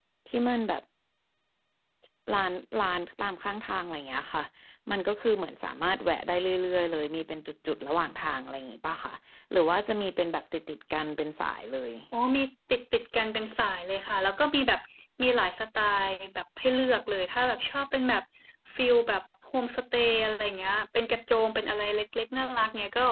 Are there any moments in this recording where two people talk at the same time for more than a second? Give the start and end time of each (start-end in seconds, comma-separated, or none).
none